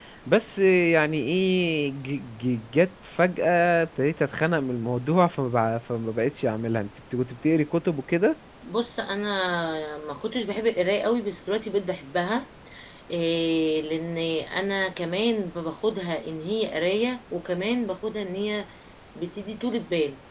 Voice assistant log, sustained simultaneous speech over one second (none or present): none